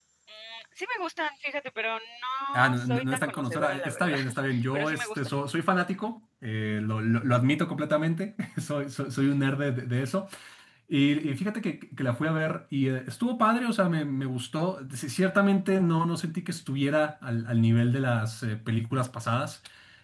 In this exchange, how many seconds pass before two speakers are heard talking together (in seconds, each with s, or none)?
2.5 s